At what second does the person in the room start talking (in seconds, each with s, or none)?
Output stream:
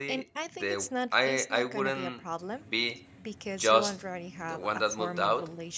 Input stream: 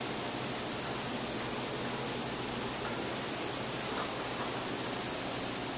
none